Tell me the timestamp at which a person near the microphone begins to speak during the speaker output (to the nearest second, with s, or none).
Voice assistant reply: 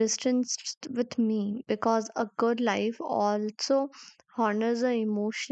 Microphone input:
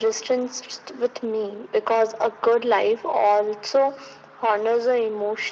none